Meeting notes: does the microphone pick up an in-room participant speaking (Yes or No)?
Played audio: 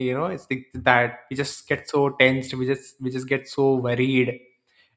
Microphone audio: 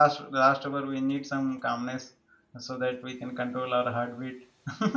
Yes